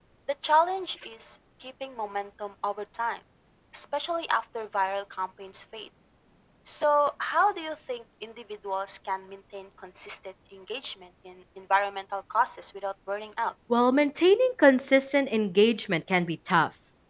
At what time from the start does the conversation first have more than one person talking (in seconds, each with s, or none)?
none